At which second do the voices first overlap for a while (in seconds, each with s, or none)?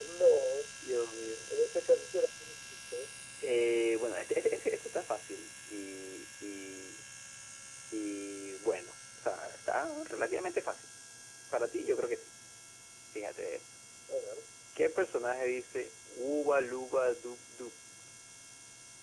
none